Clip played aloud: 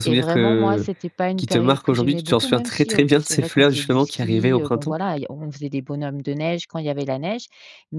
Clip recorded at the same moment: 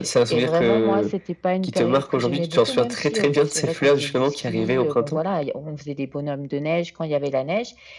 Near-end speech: none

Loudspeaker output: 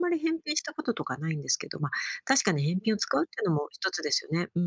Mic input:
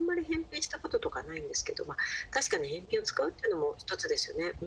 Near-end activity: none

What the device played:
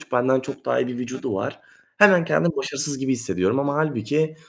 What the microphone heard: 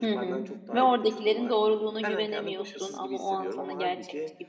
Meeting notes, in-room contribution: present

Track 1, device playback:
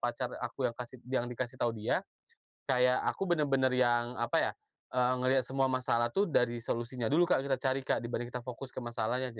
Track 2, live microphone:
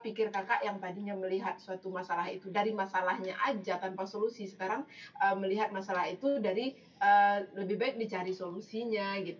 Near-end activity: present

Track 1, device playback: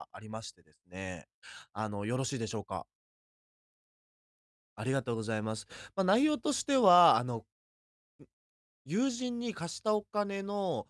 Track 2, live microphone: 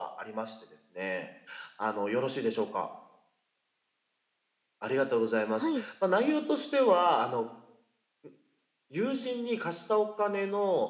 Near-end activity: present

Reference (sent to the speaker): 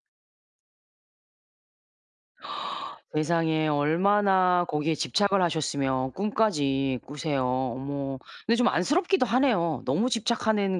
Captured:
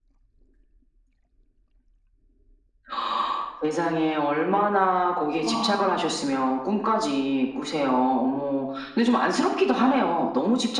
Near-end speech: present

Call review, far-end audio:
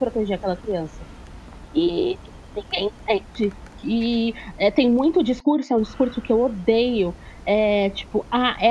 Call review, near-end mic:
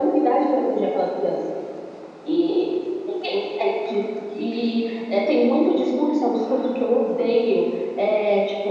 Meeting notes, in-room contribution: none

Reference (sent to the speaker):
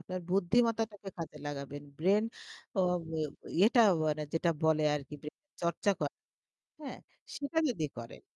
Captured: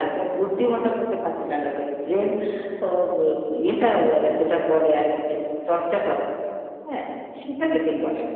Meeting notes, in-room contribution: none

